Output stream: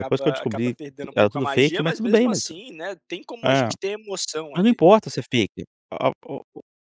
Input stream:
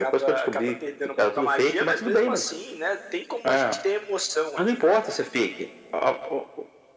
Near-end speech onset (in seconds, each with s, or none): none